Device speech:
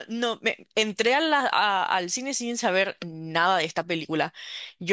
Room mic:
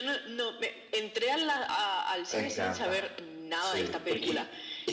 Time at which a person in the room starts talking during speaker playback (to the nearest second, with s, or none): 2 s